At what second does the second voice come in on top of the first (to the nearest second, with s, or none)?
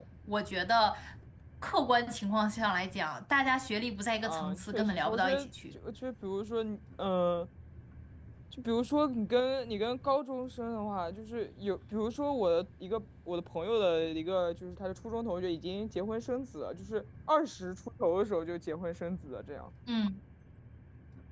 4 s